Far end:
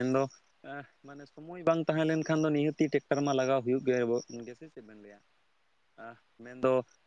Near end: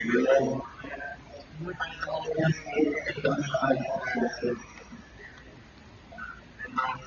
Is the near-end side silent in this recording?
Yes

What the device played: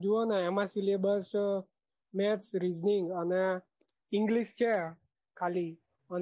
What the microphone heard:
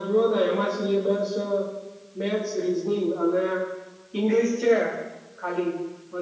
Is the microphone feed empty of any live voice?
Yes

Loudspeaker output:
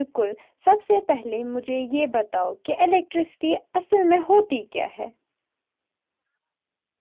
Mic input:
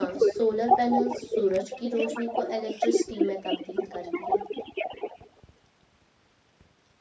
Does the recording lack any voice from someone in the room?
No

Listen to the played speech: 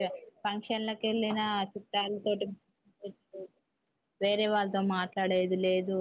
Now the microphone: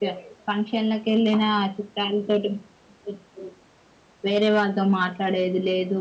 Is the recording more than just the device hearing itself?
No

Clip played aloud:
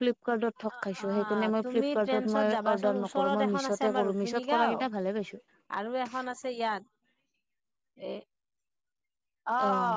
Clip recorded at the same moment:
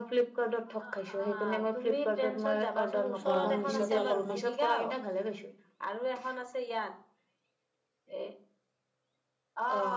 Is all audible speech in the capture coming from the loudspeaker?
No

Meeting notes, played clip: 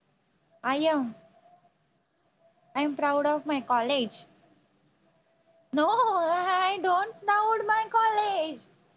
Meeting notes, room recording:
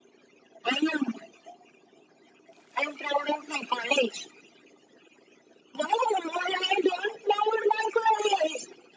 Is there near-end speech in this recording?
No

